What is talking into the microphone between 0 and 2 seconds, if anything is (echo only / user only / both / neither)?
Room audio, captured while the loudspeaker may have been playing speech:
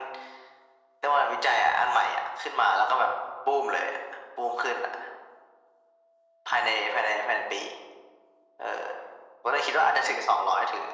echo only